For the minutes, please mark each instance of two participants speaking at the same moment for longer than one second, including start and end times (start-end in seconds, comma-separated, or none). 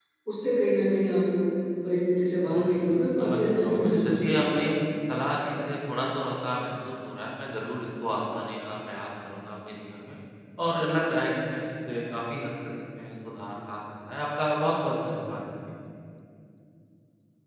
2.4-4.7